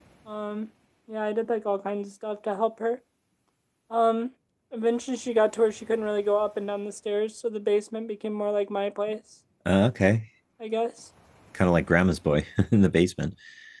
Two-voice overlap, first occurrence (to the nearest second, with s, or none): none